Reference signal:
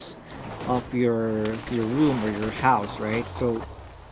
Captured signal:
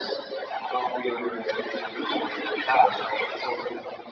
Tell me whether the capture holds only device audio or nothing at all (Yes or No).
Yes